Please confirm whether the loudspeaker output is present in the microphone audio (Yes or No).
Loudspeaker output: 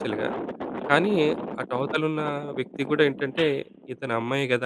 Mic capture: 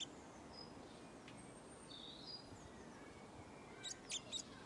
No